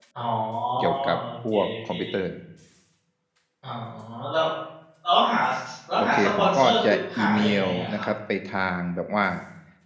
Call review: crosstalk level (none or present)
present